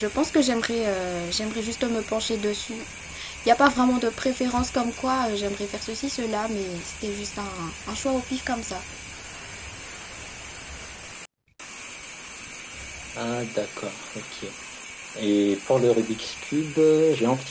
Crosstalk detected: No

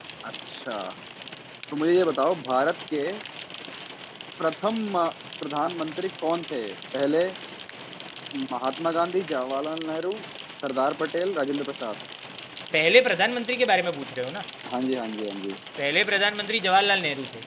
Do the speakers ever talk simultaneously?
No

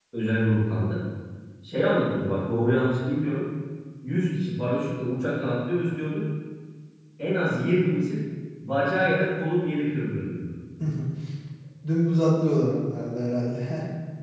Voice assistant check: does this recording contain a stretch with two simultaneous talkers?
No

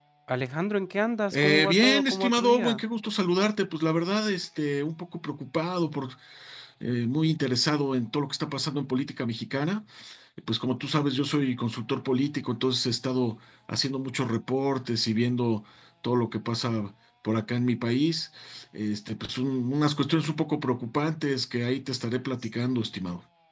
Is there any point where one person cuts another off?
Yes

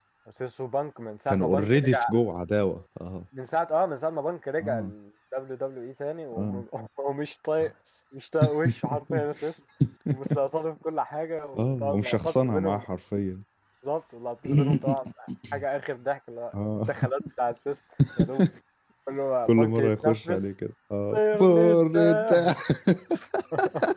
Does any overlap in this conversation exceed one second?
Yes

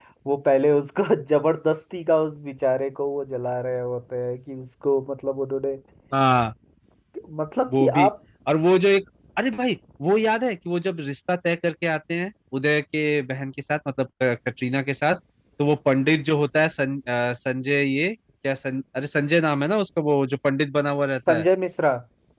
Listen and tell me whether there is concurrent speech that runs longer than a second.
No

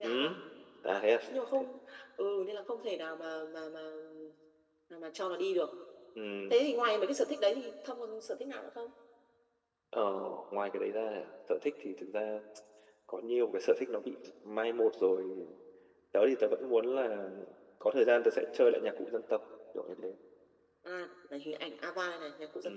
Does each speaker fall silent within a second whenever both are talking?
Yes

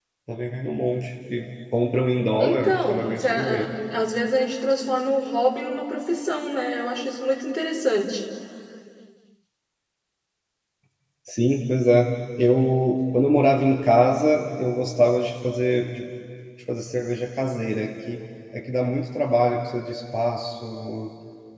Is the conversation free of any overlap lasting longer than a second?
No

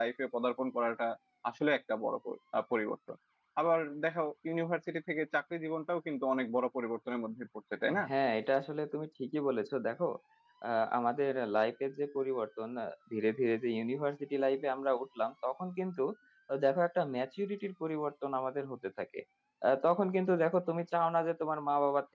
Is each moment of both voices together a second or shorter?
Yes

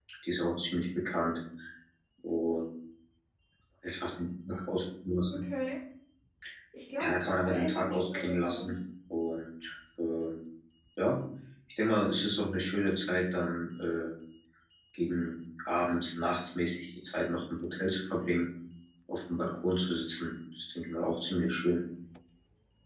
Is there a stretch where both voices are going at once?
Yes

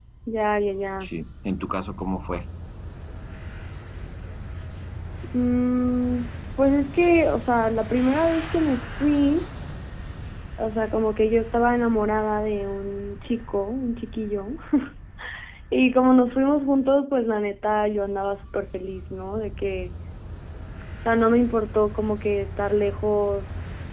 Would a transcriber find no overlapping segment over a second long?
Yes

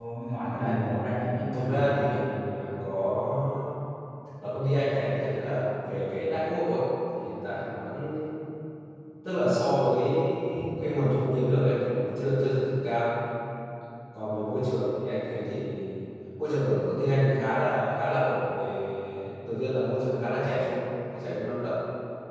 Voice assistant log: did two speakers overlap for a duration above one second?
Yes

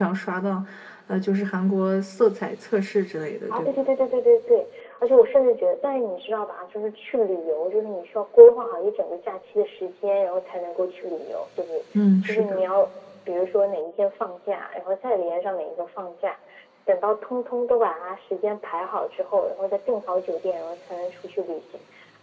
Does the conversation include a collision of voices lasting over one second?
No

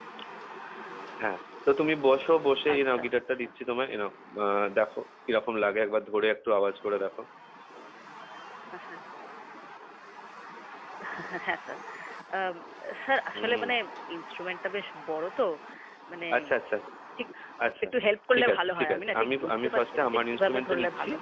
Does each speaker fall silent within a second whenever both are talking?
No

